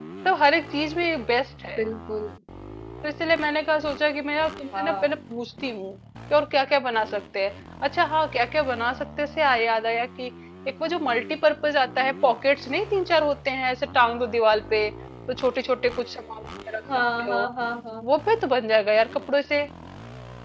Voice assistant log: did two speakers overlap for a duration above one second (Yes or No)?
No